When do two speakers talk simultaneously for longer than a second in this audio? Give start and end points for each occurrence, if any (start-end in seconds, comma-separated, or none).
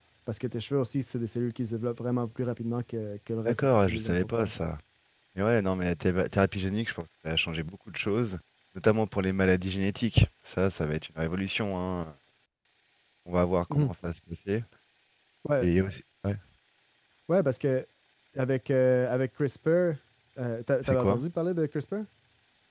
3.4-4.6